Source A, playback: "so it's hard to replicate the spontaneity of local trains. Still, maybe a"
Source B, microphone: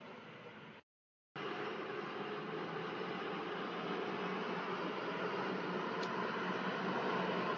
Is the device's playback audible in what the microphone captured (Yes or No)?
No